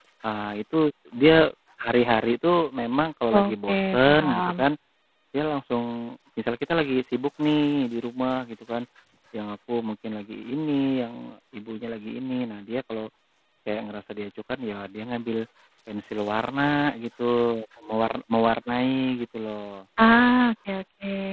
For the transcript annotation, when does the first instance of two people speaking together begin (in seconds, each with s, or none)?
3.3 s